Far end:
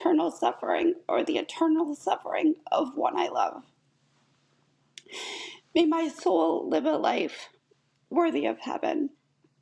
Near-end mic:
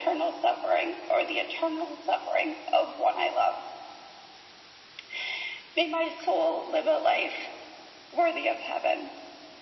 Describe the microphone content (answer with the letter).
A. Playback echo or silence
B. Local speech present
A